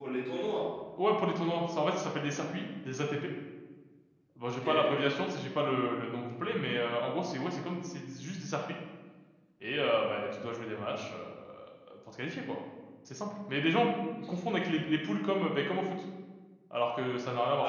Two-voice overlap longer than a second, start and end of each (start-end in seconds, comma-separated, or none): none